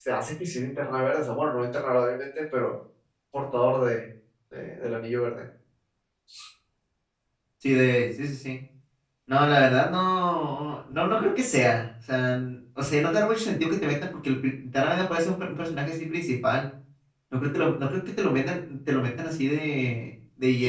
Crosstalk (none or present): none